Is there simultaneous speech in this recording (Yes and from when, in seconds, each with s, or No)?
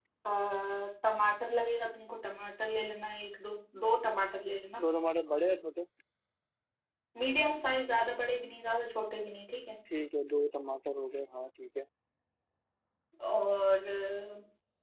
No